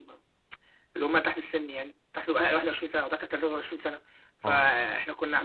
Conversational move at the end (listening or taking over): listening